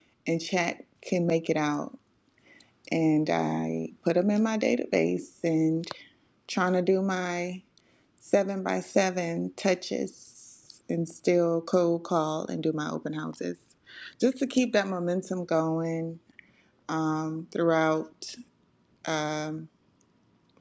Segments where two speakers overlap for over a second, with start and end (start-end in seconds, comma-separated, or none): none